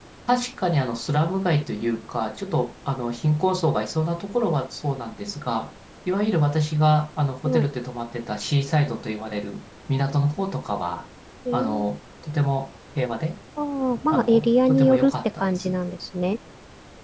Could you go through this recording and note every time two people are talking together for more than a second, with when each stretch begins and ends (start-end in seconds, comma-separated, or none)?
14.1-15.8